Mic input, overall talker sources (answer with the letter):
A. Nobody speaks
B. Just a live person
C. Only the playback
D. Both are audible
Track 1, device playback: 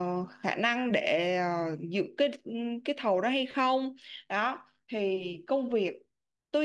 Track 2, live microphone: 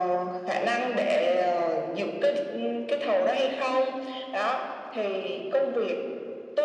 C